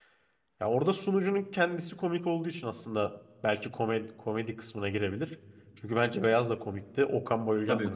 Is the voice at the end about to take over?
Yes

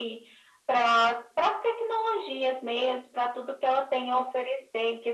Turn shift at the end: No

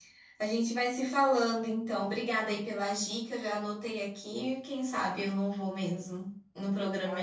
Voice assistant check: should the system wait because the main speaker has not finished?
No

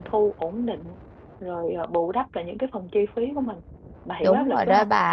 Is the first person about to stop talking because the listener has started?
Yes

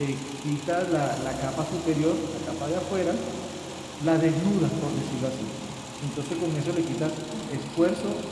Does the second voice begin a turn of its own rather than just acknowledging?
No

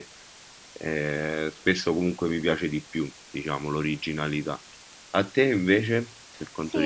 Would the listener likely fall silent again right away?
No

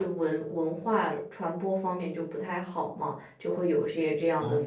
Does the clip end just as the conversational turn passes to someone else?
Yes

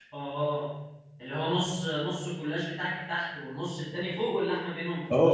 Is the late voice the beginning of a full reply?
Yes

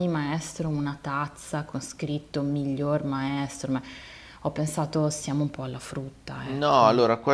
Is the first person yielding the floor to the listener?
Yes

